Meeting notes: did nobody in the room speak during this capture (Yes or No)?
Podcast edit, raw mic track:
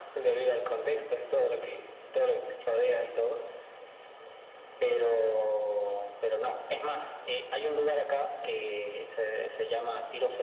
Yes